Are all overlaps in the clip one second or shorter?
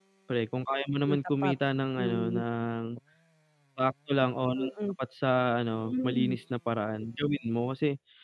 Yes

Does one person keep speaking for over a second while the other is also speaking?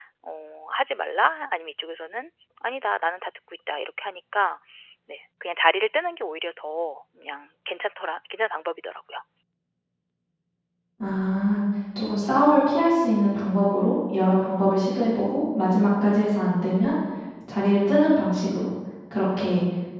No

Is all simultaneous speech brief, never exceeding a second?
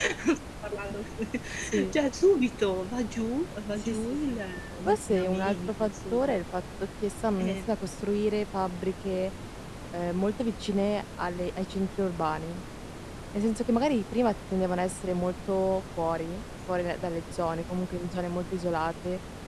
No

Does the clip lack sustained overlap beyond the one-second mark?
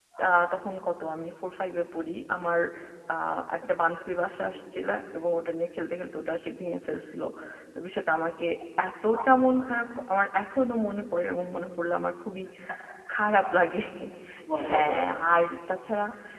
Yes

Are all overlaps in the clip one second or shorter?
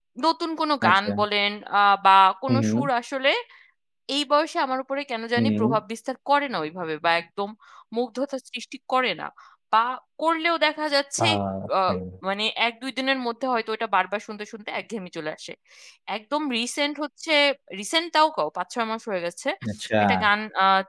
Yes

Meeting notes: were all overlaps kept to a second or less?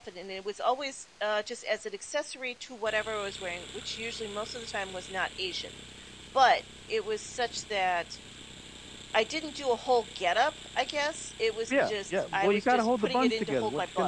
No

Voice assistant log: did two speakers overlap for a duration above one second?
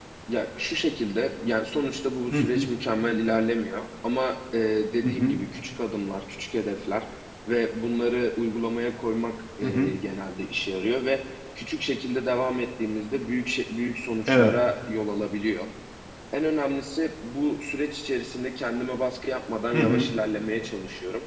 No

